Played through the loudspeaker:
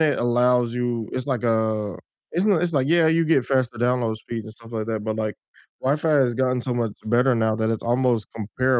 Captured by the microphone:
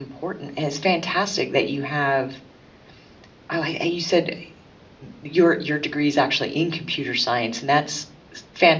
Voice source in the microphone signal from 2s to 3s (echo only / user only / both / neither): user only